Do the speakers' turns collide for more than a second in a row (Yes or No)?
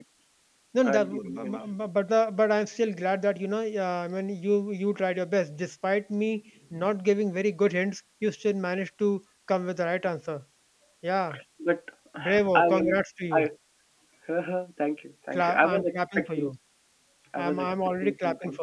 Yes